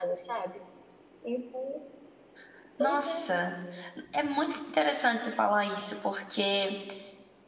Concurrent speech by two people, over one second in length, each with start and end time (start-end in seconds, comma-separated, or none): none